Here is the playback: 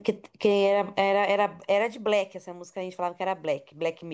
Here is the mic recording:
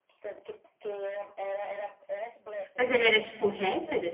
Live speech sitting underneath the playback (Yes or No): No